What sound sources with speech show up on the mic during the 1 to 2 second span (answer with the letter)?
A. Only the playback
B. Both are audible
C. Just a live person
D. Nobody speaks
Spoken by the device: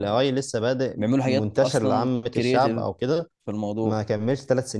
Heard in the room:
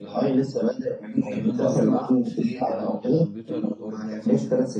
B